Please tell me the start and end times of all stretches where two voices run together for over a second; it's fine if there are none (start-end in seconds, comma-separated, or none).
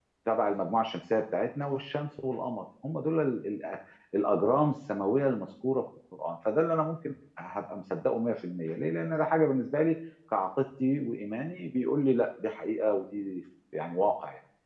none